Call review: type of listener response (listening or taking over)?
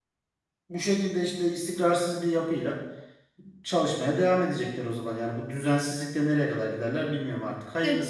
taking over